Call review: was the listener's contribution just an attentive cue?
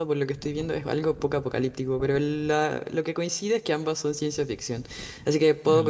Yes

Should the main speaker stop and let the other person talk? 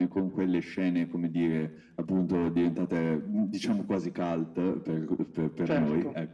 No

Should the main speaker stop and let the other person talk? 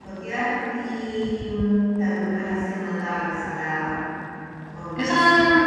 Yes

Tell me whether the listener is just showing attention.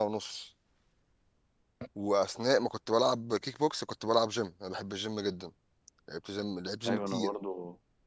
No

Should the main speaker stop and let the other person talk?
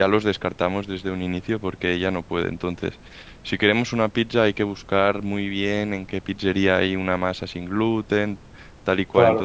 No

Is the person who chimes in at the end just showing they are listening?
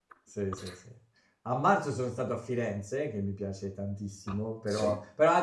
Yes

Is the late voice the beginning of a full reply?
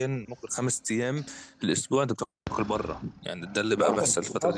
Yes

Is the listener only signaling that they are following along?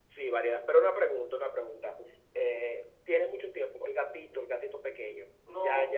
No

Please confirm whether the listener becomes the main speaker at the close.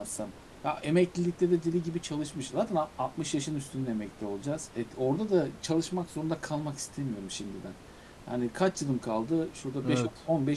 No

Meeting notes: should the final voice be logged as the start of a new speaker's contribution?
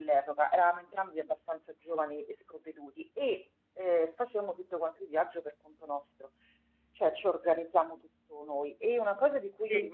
No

